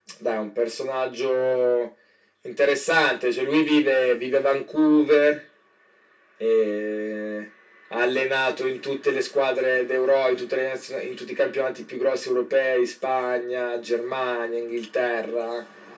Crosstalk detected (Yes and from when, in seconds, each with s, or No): No